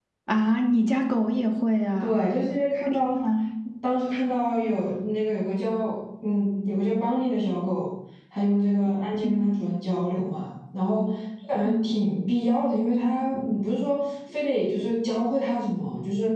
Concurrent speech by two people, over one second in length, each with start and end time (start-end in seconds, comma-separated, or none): none